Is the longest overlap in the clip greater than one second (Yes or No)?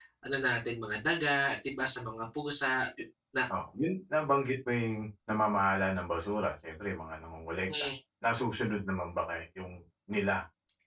No